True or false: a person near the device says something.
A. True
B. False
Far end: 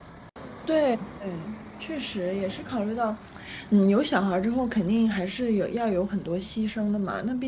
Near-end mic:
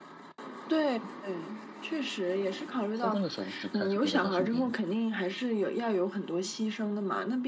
A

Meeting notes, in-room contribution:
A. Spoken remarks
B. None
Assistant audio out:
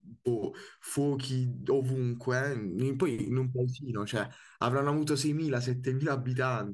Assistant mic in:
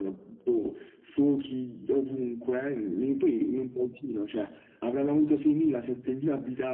B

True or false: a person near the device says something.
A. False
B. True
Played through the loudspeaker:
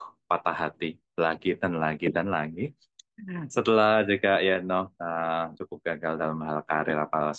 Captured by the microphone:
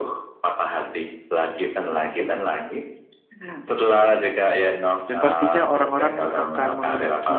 B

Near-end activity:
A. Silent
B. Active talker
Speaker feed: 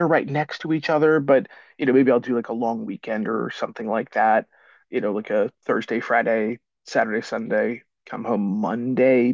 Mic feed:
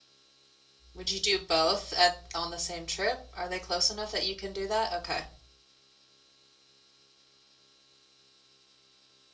B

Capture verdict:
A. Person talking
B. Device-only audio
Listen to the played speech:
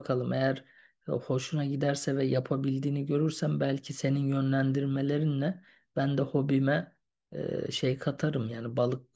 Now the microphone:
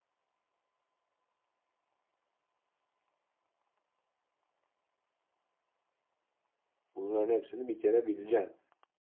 A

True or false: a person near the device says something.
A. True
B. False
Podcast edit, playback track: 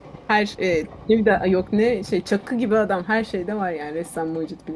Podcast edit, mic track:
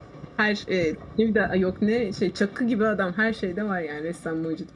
B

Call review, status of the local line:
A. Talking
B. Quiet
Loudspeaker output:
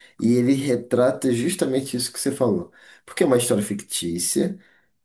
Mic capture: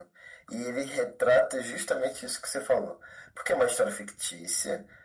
B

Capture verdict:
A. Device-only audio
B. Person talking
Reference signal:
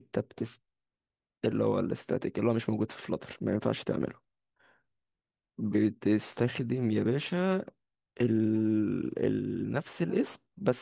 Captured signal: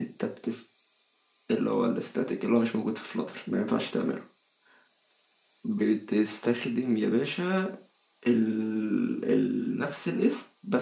A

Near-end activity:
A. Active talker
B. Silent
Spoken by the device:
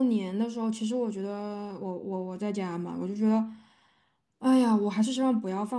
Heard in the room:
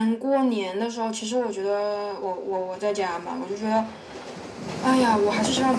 B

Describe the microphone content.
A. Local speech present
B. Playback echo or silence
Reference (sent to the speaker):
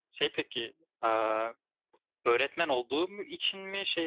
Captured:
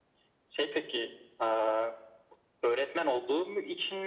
B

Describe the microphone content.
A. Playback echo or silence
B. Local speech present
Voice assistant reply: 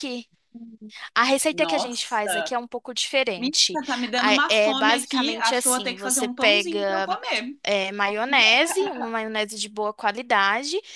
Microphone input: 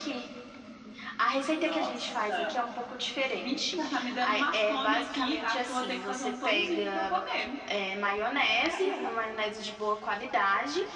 A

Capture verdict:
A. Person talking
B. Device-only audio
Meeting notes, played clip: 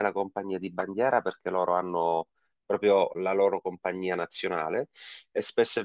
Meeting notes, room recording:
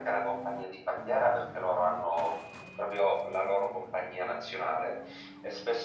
B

